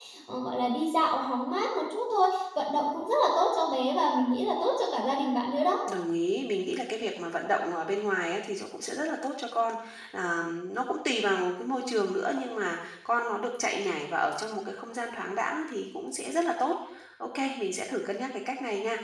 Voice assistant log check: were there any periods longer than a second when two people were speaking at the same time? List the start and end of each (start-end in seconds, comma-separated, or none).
none